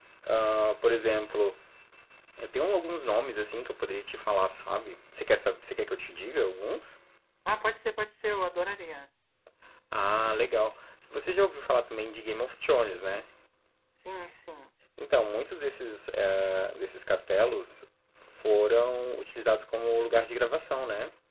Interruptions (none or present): none